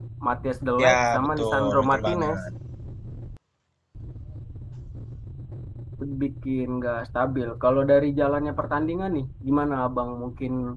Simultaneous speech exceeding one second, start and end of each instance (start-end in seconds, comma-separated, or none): 0.8-2.4